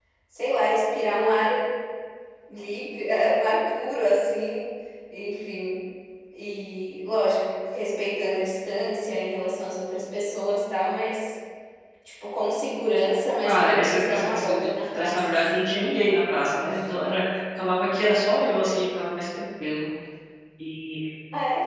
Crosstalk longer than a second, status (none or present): present